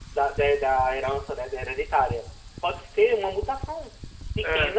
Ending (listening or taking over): listening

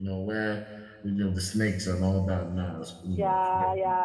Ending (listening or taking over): taking over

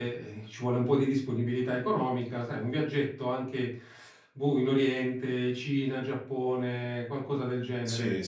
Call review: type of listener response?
taking over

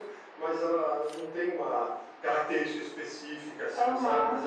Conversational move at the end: taking over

